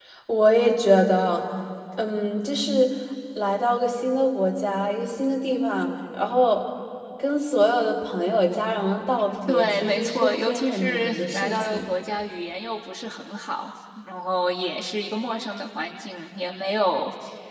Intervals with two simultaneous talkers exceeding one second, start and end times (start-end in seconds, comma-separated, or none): 9.5-11.9